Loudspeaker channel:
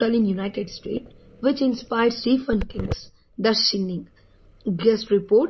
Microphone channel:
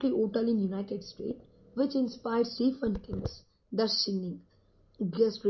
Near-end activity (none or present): none